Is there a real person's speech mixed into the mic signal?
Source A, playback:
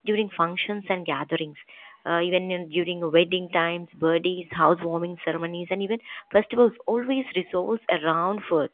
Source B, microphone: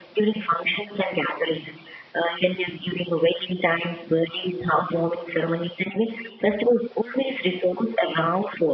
No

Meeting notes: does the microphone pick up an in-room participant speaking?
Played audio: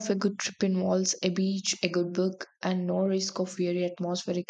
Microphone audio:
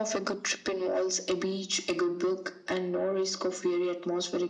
No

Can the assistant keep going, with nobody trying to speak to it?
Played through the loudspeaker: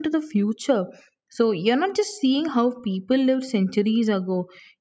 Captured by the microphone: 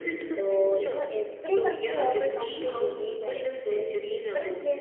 No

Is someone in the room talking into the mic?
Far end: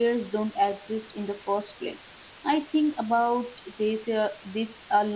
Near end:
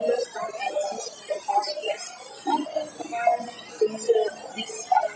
No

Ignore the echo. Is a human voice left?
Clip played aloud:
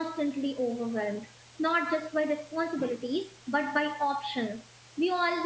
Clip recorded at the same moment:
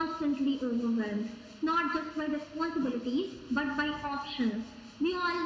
No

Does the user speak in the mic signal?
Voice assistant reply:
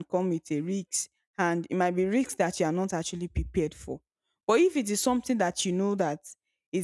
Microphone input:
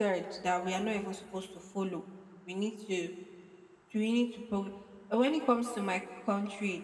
Yes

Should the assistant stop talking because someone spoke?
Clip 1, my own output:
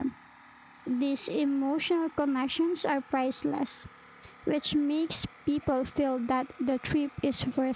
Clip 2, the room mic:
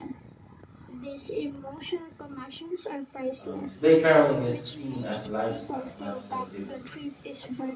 Yes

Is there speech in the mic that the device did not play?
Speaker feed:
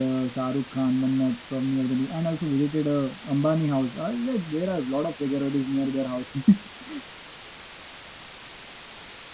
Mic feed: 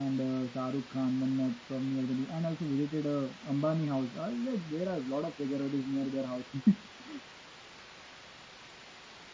No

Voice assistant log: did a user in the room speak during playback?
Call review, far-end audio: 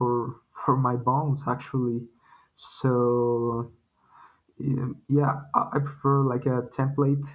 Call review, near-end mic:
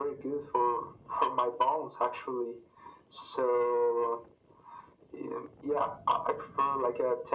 No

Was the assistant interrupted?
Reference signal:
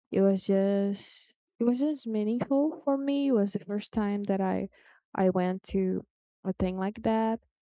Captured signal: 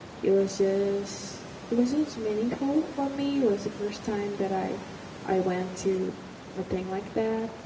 No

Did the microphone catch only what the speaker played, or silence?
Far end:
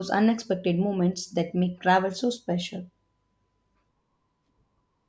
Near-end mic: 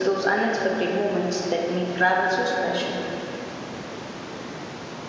Yes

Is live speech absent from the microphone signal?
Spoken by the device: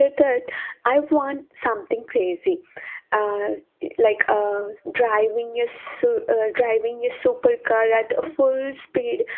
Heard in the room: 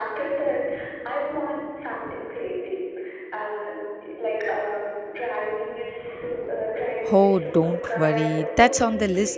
No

